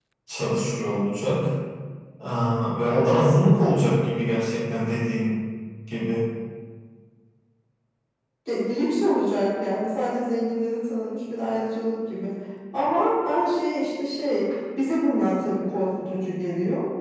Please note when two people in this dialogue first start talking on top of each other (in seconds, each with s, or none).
none